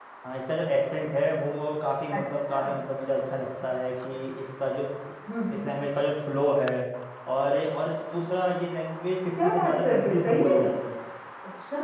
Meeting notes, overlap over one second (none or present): present